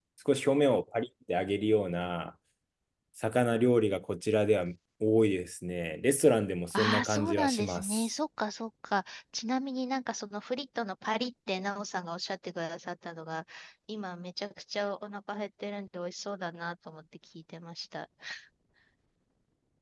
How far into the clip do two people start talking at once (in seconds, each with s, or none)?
6.7 s